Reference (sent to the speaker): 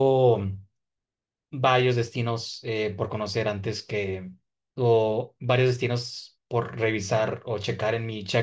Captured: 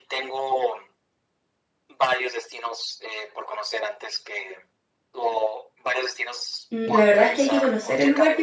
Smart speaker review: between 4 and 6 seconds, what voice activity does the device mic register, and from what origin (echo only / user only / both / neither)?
echo only